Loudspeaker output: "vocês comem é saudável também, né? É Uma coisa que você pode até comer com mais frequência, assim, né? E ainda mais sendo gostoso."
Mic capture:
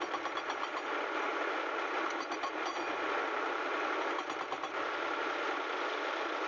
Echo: none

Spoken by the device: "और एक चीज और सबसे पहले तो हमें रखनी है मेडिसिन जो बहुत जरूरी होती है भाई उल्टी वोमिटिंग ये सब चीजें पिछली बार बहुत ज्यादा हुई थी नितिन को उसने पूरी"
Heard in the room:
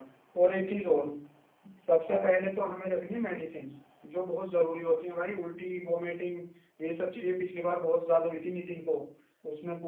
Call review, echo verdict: present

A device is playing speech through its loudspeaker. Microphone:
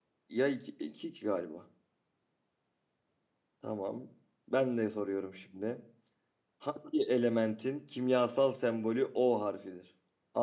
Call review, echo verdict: none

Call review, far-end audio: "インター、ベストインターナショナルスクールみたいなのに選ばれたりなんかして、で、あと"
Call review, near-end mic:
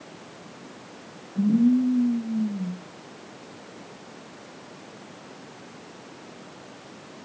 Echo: none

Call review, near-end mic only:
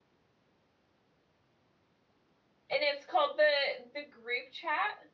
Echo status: none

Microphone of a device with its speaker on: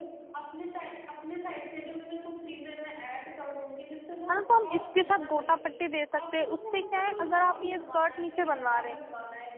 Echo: present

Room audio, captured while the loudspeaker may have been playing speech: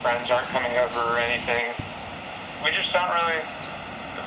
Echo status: present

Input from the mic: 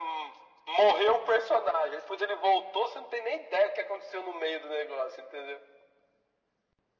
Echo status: present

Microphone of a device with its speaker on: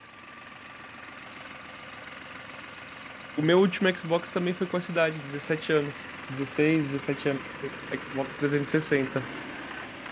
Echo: none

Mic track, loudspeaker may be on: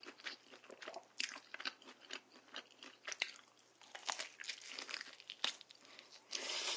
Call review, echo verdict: none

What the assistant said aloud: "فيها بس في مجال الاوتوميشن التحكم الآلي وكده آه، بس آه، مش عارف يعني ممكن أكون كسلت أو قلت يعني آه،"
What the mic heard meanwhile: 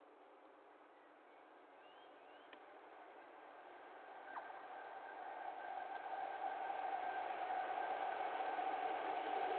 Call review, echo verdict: none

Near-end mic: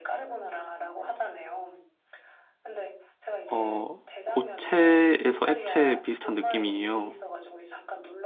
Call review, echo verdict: present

